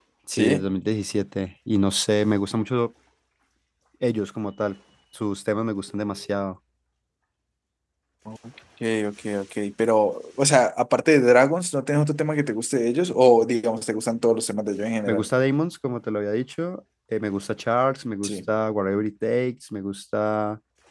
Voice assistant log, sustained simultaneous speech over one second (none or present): none